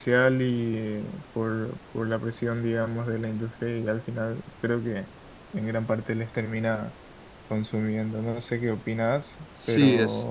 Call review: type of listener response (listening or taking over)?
taking over